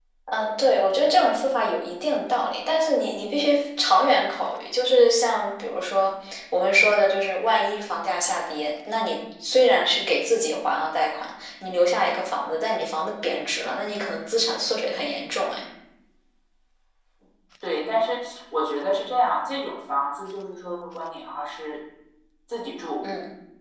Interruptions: none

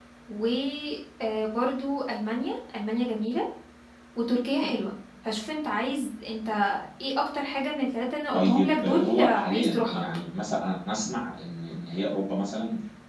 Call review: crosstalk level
present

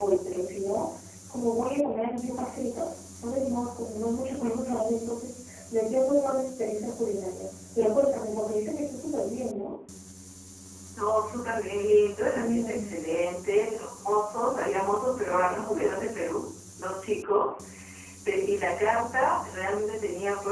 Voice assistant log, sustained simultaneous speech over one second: none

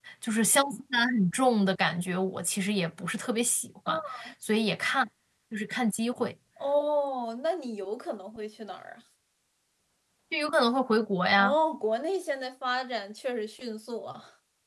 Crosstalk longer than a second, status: none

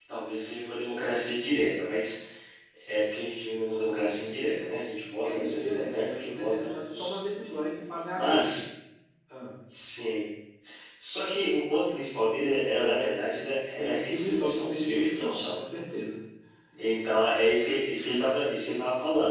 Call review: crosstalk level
present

